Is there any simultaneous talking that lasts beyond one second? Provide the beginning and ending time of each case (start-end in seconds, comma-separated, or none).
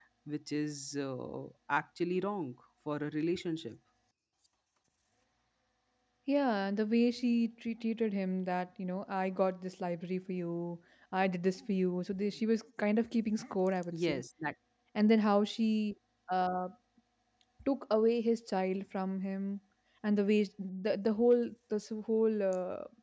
none